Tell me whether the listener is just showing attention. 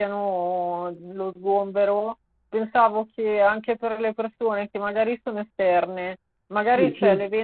Yes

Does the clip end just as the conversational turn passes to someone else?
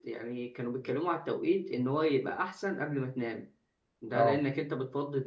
No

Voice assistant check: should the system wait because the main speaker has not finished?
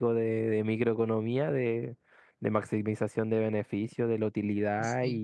Yes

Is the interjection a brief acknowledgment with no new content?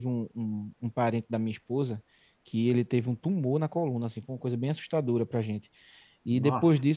Yes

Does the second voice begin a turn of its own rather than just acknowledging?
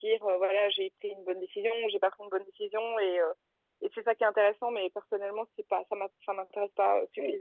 Yes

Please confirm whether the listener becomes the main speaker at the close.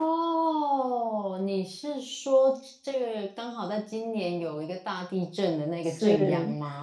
Yes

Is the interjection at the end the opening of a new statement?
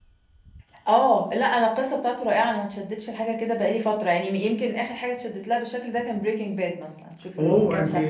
Yes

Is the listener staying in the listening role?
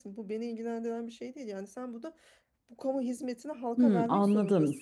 No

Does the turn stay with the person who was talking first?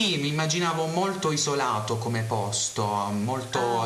Yes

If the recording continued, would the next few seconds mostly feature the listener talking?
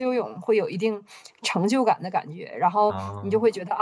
No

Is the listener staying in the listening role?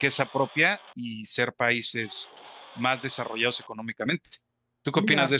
No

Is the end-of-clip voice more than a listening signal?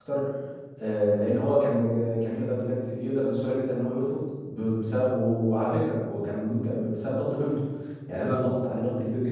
No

